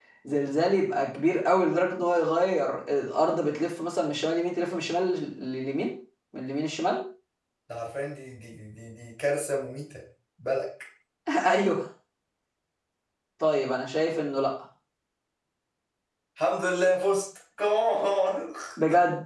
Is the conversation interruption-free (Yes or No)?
Yes